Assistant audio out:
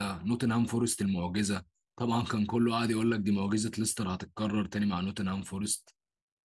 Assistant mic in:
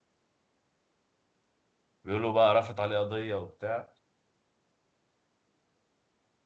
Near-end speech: present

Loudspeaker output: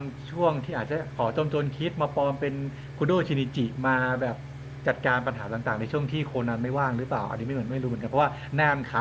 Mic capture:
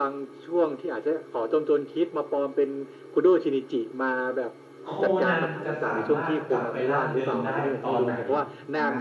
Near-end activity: present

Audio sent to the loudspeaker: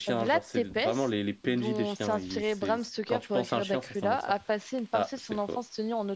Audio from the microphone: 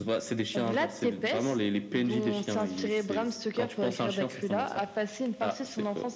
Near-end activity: none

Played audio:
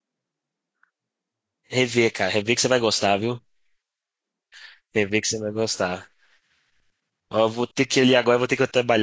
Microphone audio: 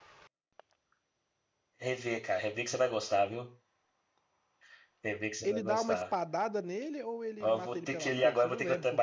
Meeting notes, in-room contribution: present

